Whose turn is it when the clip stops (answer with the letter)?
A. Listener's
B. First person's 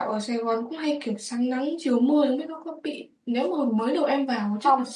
B